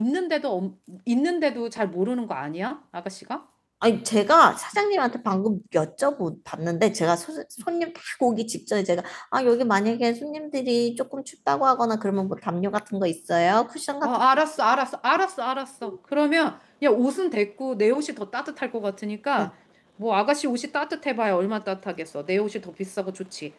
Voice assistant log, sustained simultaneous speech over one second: none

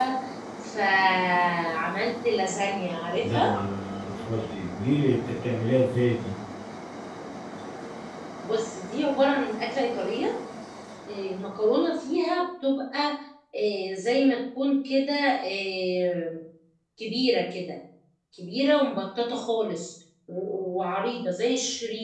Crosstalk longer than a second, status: none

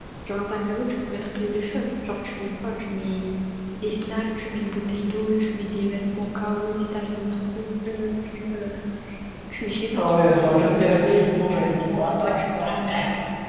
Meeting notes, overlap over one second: present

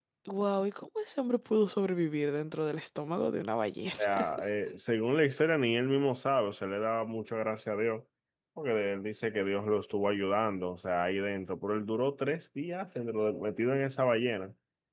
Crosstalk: none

